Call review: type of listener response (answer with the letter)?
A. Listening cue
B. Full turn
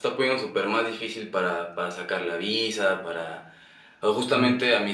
A